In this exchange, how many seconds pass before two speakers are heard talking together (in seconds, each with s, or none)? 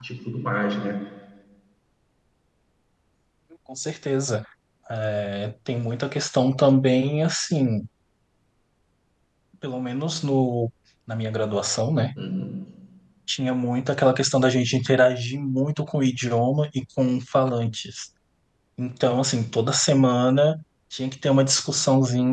none